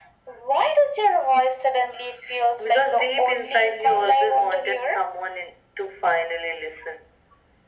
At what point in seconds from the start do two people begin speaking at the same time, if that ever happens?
2.6 s

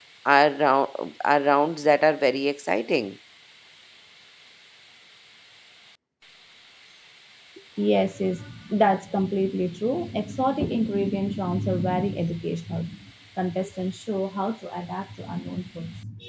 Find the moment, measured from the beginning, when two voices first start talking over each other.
none

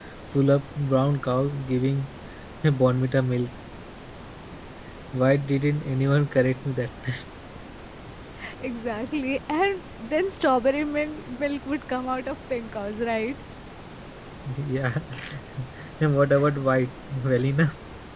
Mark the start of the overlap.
none

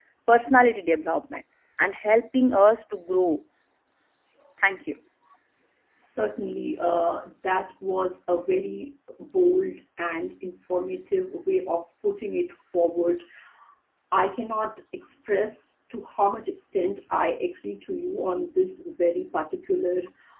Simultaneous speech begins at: none

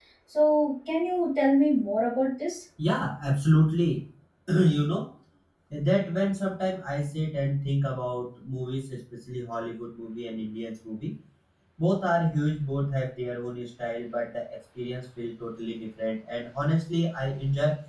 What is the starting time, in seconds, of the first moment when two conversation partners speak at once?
none

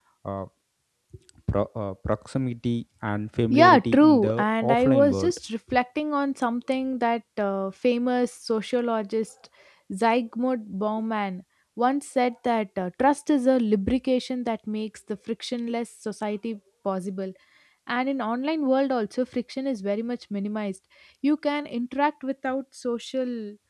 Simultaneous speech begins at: 3.5 s

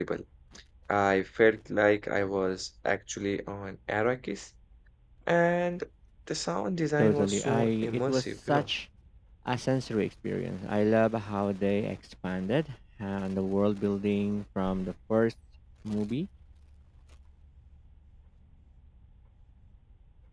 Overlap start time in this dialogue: 7.0 s

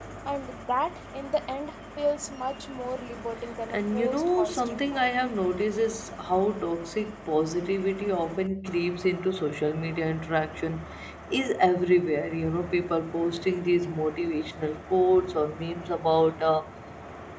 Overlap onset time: 3.7 s

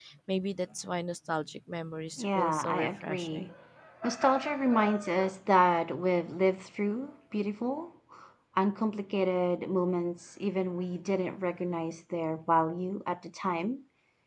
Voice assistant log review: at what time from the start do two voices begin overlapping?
2.2 s

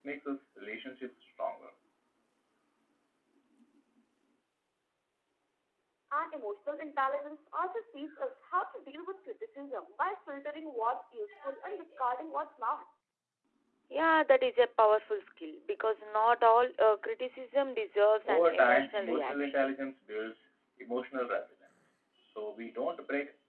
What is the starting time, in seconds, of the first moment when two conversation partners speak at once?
18.2 s

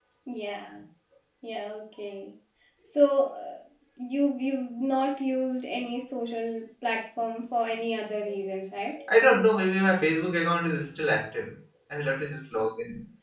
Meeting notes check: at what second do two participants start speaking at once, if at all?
none

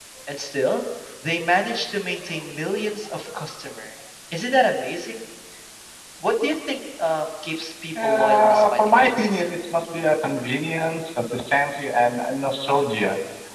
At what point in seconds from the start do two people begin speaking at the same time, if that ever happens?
8.0 s

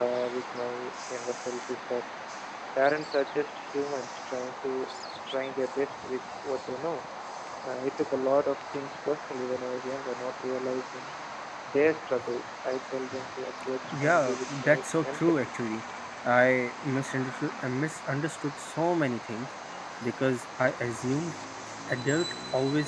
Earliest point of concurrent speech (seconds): 13.9 s

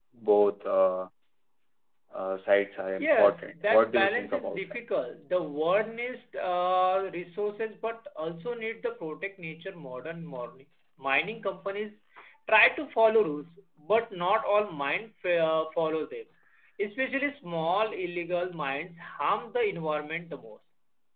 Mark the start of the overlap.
3.0 s

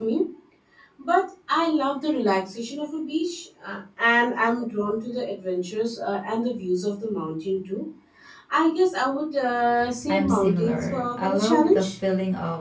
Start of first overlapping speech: 10.1 s

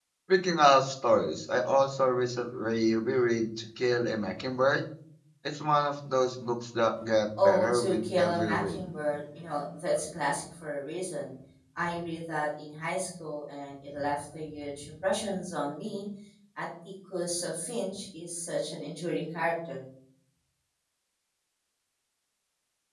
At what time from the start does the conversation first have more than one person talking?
7.4 s

